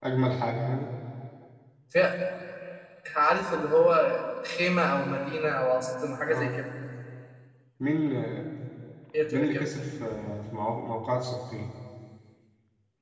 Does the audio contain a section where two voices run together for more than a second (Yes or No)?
No